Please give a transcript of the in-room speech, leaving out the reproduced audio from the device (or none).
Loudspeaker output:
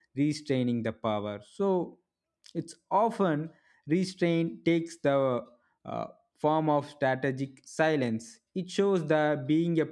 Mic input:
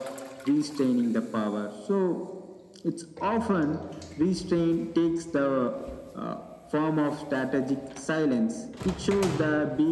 none